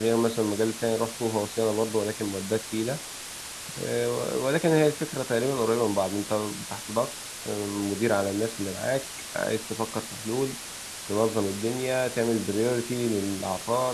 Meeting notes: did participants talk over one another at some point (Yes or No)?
No